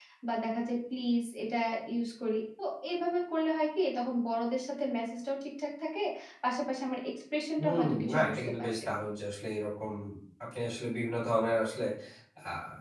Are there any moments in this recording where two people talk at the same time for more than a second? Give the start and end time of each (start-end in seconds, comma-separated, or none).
7.6-8.9